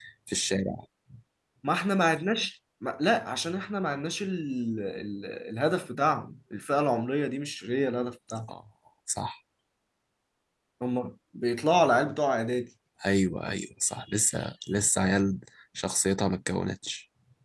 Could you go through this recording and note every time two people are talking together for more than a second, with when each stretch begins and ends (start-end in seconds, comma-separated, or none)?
none